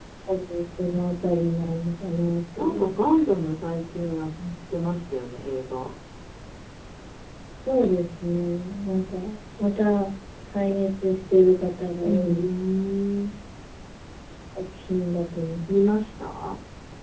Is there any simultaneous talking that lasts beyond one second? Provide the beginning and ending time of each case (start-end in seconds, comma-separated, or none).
none